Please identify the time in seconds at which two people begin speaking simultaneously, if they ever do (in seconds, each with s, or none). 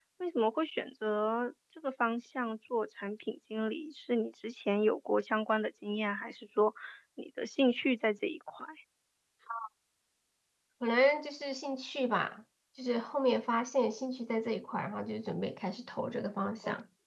none